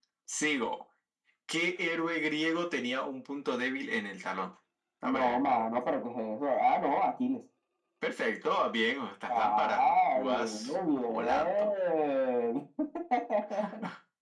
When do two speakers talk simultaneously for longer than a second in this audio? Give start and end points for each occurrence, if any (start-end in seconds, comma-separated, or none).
9.3-11.7